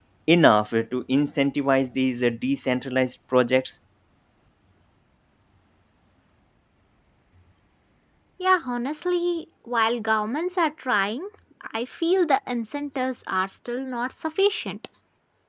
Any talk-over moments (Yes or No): No